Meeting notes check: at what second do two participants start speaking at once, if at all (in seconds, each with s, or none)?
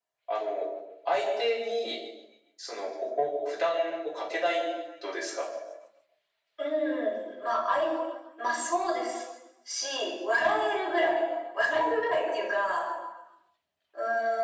none